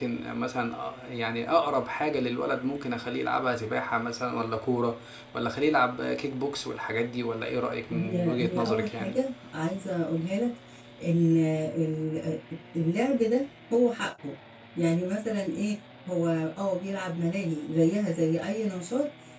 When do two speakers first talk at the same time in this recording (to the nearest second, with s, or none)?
8 s